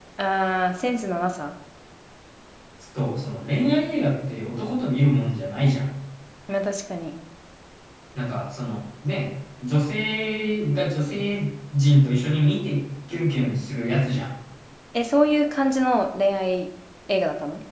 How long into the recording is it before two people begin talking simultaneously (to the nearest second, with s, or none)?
none